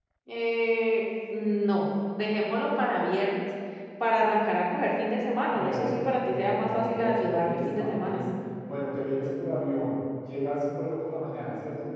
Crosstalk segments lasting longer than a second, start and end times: 5.5-8.2

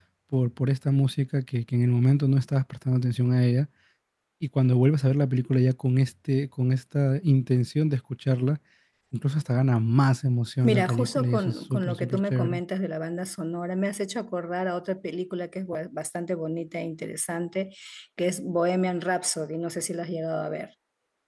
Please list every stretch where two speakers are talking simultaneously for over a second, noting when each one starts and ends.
10.6-12.6

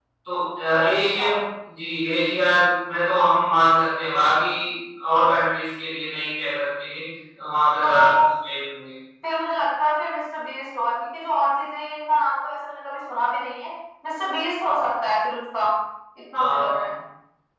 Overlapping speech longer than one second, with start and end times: none

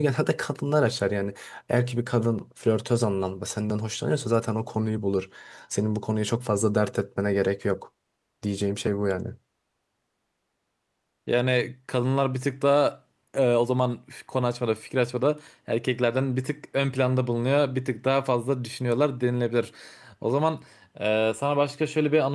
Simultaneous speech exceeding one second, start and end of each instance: none

